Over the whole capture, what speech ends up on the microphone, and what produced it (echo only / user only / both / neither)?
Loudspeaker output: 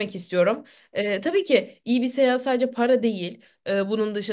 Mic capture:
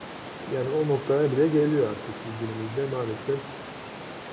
user only